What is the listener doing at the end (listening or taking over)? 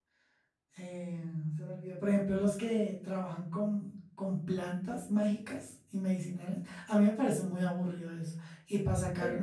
listening